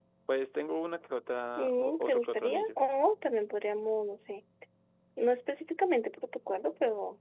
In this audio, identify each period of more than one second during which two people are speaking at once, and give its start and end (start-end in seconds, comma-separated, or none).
1.6-2.8